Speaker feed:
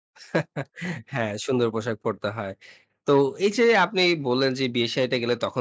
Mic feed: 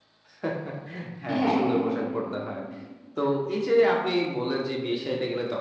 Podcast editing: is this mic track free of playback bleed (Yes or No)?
No